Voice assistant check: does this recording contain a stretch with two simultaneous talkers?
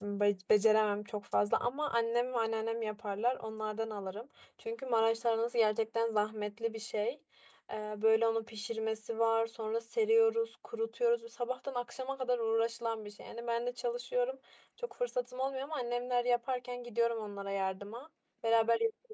No

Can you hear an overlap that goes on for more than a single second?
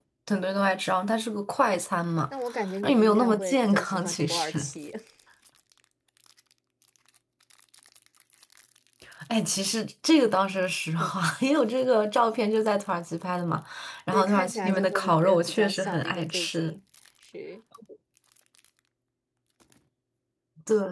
Yes, from 2.8 s

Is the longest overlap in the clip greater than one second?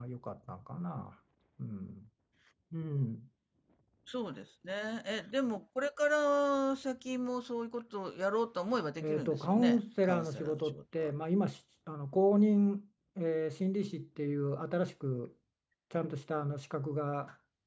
Yes, from 9.0 s

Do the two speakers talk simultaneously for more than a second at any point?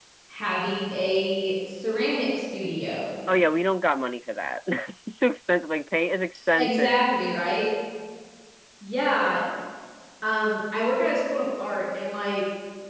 No

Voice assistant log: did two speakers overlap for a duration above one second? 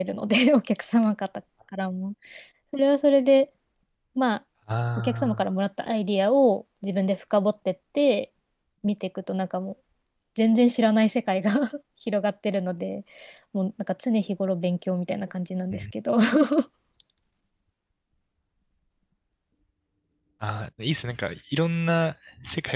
No

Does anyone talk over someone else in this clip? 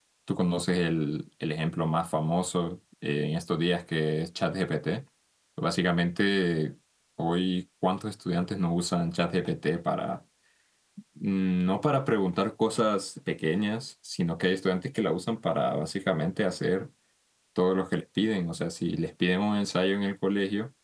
No

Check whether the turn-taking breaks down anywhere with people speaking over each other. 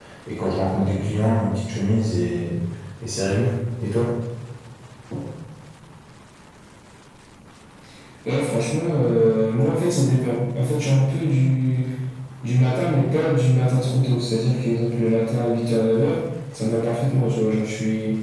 No

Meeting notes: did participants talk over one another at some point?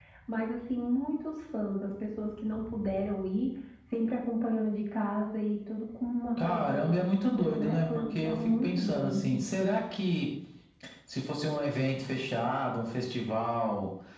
Yes, from 6.4 s

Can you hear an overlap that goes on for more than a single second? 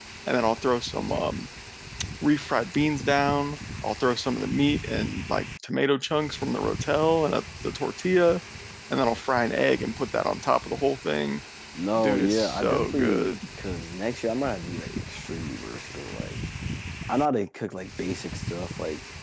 Yes, from 12.0 s

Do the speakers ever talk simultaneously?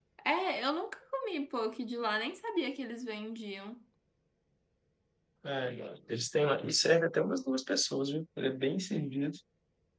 No

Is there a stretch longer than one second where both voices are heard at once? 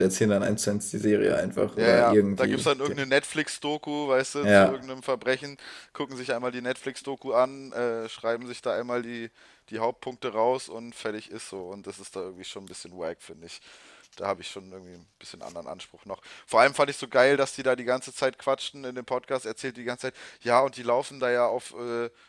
Yes, from 1.8 s

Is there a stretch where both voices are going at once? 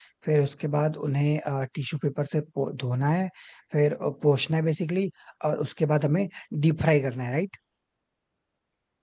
No

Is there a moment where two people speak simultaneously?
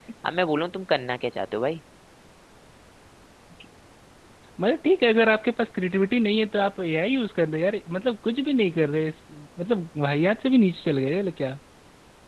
No

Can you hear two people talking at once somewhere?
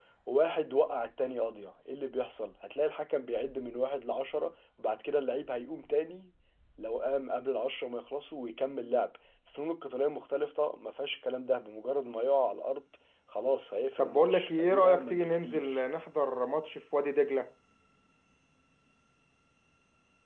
Yes, from 14.0 s

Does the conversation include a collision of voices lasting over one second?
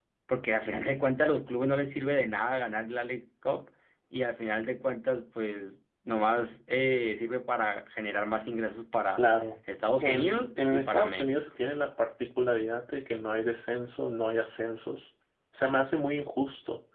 Yes, from 10.0 s

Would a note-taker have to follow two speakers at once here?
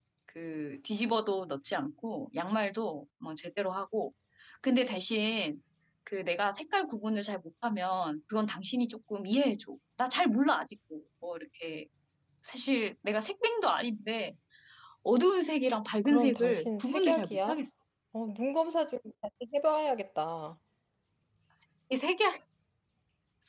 Yes, from 16.1 s

